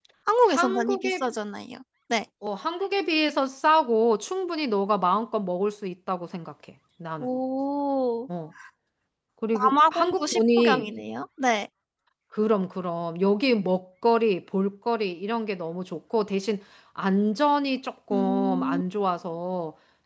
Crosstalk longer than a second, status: present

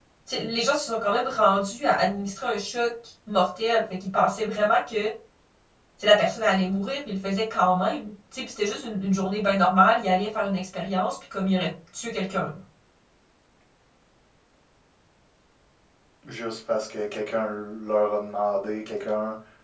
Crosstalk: none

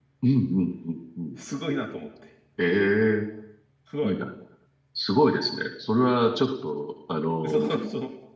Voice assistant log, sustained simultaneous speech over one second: none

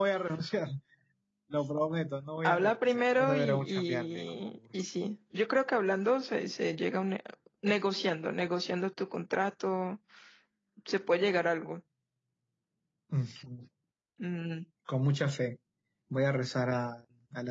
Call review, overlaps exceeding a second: present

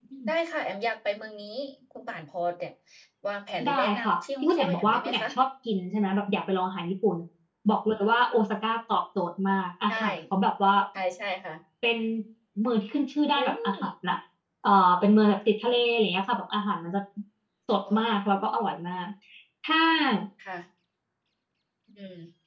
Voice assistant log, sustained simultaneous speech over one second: present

